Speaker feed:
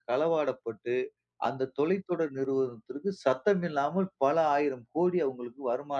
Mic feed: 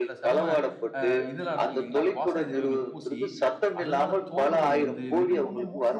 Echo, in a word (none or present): present